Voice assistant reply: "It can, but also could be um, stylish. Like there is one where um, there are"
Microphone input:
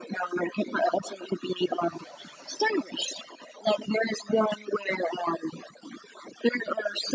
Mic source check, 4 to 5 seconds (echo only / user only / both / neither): echo only